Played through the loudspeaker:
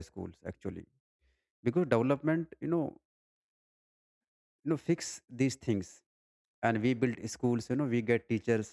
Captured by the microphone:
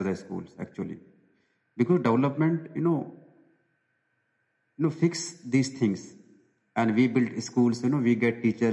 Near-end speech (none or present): none